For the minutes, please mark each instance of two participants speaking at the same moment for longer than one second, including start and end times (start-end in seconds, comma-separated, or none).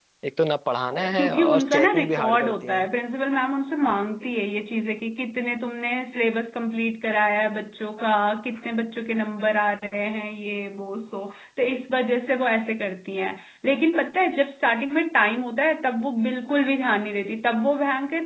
1.2-2.9